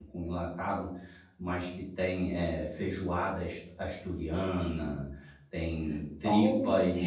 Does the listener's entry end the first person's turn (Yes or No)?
No